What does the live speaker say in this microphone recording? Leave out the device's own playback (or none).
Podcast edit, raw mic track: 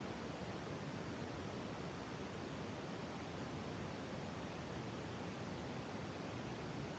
none